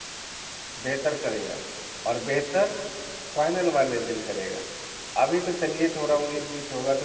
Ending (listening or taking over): listening